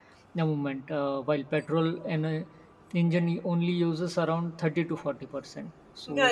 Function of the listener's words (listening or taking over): taking over